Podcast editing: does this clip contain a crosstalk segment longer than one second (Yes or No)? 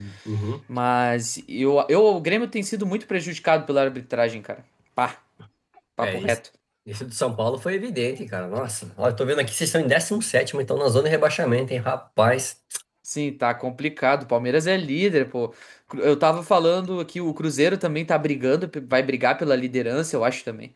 No